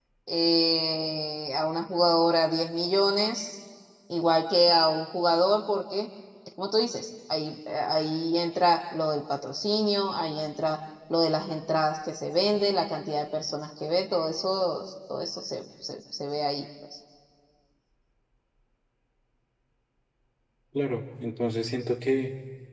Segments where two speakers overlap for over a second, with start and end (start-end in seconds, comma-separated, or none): none